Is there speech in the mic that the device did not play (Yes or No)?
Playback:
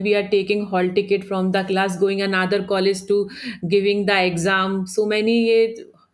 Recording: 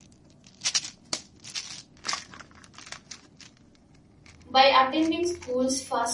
Yes